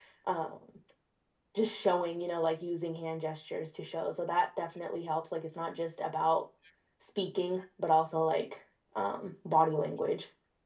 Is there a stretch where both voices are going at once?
No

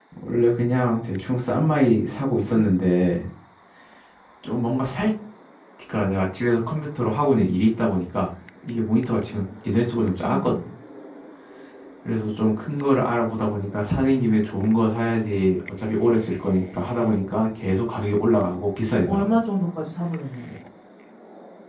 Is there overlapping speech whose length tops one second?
No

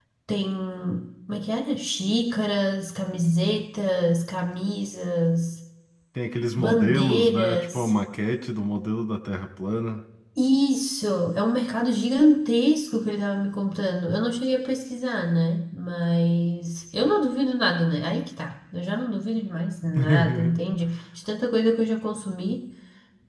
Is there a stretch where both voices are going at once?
Yes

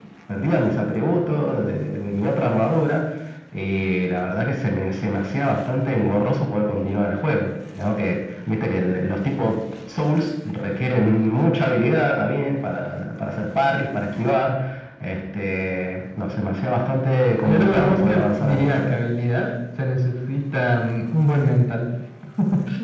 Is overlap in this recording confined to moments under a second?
No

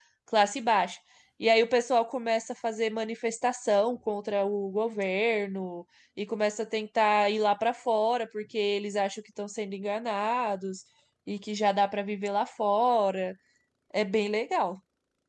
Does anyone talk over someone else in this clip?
No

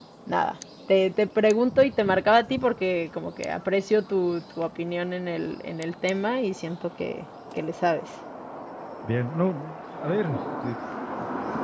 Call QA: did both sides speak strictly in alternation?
Yes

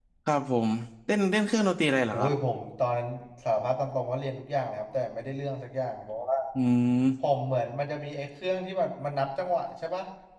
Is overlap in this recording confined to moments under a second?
Yes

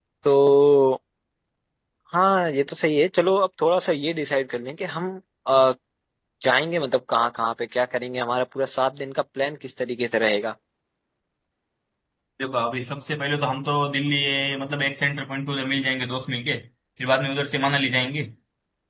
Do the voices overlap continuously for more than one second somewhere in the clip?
No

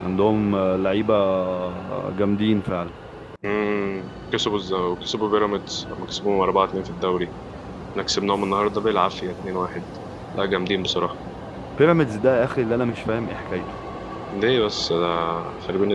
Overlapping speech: No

